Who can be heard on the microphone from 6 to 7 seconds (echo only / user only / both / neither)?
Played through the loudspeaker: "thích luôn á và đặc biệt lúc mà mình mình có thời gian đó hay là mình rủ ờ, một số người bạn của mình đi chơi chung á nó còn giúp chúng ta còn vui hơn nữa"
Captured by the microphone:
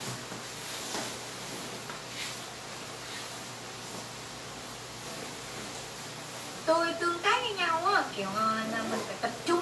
user only